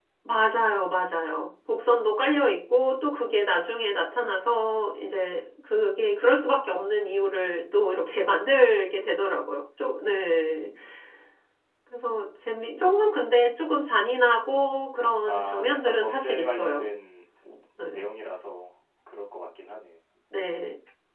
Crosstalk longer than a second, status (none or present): present